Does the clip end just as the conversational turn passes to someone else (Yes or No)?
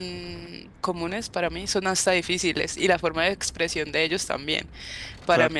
No